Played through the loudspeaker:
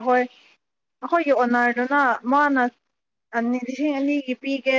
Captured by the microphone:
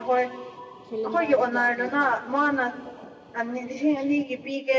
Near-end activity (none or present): present